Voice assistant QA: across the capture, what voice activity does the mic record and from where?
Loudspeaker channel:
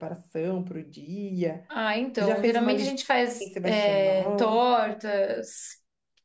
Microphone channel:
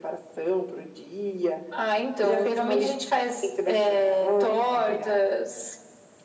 both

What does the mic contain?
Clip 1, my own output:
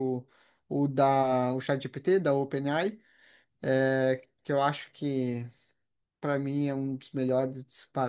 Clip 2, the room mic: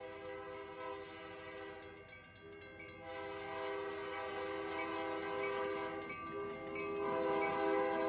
neither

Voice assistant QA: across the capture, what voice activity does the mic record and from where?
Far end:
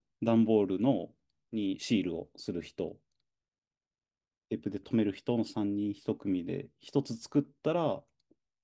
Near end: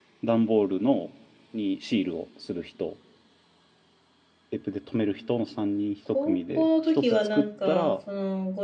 both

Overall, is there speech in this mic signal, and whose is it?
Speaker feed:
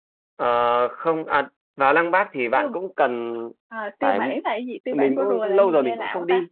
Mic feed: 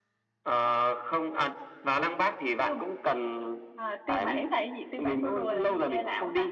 echo only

